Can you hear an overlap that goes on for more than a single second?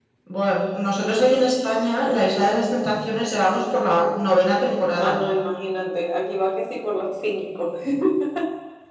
No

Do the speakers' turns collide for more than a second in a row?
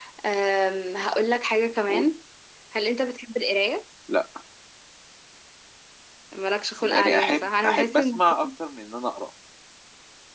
Yes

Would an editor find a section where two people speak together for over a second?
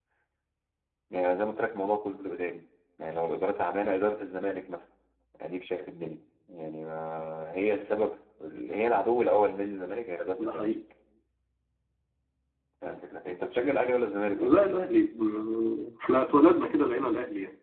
No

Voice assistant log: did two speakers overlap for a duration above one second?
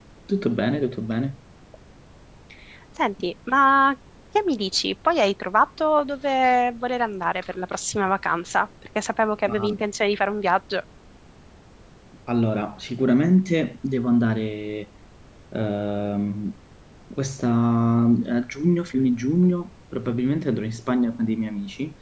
No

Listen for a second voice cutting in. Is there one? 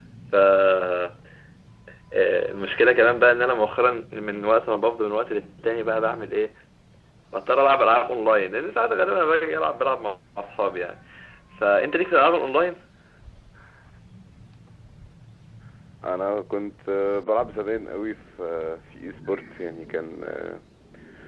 No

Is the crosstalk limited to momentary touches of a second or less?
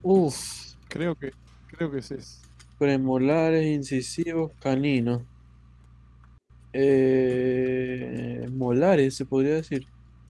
Yes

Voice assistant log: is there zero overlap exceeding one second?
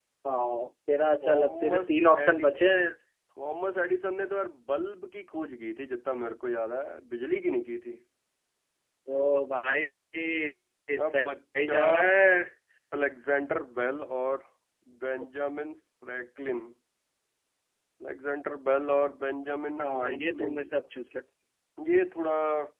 No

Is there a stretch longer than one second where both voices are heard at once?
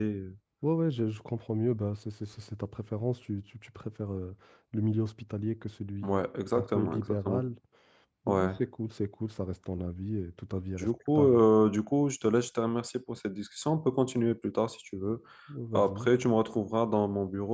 Yes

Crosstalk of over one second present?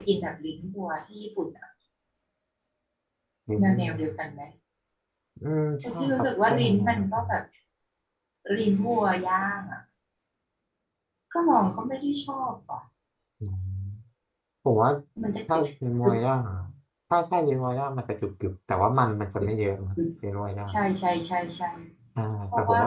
Yes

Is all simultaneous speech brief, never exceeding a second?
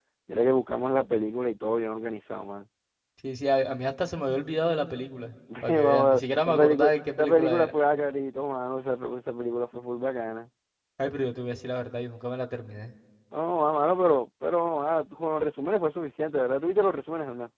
No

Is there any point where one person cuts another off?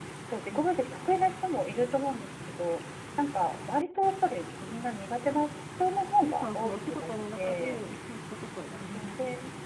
Yes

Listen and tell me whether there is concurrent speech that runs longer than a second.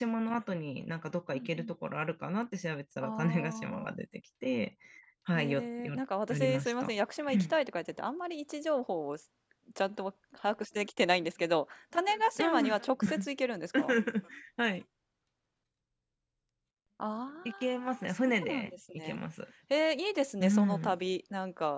Yes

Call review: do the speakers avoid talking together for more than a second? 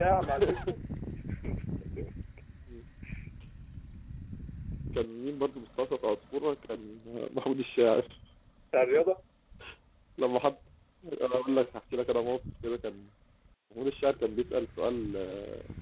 Yes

